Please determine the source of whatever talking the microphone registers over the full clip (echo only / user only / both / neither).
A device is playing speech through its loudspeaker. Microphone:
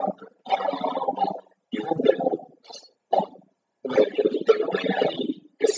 echo only